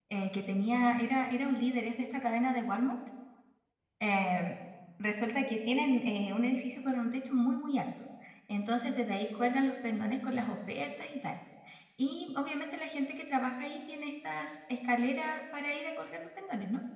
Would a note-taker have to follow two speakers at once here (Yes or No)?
No